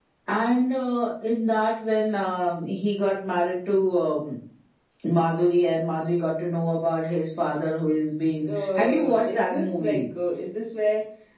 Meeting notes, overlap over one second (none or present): present